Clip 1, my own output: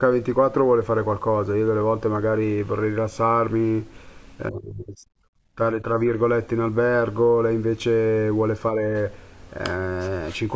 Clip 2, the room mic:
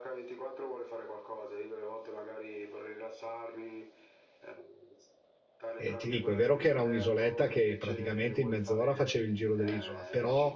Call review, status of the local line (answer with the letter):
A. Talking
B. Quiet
A